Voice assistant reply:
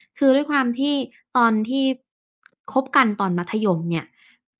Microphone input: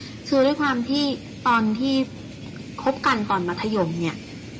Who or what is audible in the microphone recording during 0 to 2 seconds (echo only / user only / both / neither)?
echo only